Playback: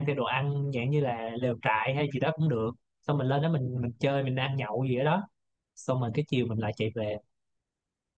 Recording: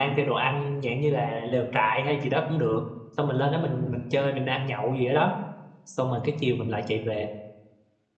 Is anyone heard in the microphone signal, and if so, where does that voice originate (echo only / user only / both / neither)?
echo only